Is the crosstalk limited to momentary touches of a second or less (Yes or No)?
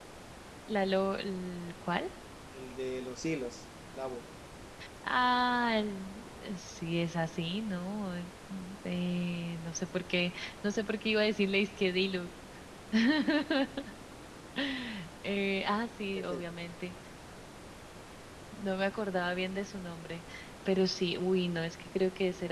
Yes